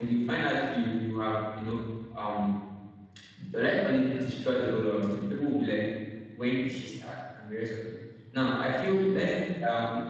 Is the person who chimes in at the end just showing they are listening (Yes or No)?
Yes